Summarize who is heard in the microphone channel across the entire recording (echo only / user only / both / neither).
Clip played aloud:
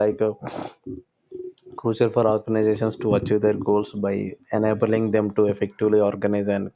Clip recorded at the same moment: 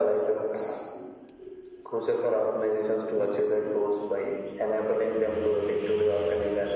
echo only